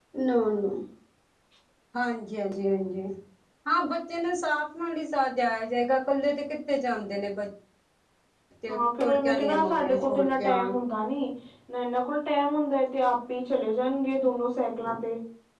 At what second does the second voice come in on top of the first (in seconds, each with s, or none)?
8.7 s